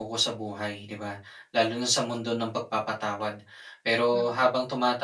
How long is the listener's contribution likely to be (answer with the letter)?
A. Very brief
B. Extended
A